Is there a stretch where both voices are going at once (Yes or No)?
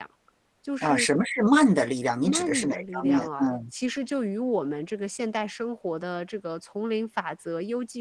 Yes